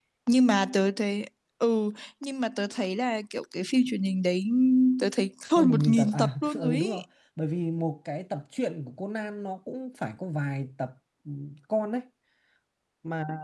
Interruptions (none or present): present